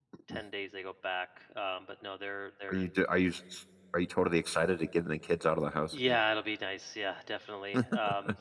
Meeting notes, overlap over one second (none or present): none